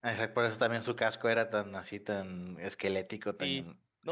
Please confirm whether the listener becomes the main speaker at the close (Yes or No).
Yes